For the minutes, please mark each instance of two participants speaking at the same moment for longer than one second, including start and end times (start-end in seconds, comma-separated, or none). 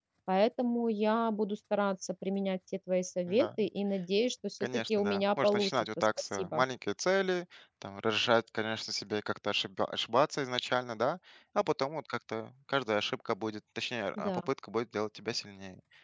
4.6-6.6